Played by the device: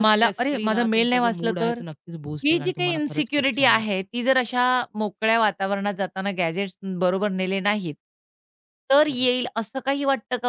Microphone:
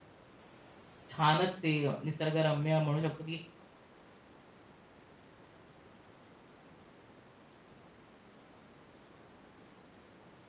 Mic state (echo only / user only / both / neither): user only